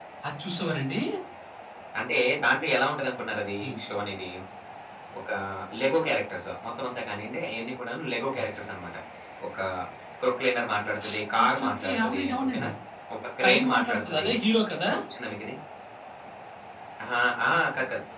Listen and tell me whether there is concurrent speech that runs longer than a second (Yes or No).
Yes